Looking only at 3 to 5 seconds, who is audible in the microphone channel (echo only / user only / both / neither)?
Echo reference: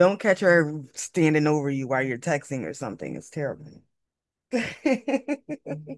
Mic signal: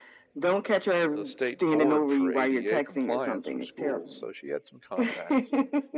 both